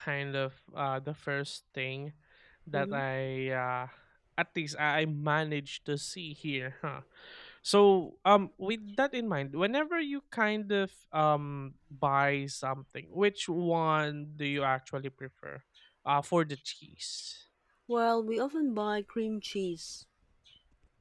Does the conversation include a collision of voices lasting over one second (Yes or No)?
No